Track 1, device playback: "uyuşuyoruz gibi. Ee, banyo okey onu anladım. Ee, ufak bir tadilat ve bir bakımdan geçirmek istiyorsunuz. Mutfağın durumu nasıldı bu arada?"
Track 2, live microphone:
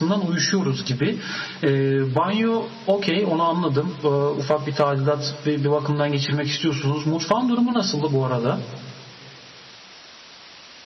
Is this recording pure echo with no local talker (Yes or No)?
Yes